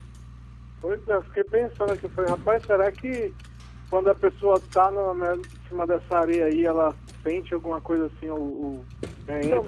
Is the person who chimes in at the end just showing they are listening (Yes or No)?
No